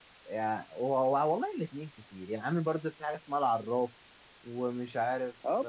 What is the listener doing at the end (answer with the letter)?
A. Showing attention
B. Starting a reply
B